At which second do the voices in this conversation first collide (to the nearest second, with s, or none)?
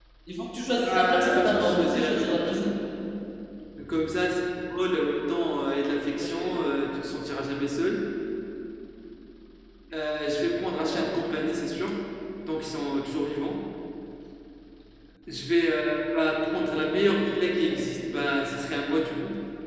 1 s